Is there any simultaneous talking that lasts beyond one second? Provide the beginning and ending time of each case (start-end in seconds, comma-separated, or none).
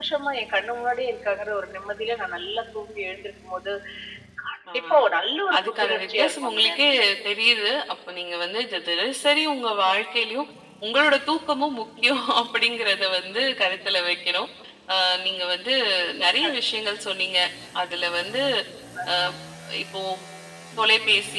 5.6-6.8